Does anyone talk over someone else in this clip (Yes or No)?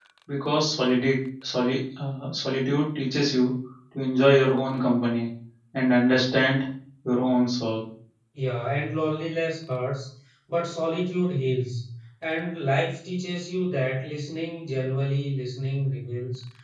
No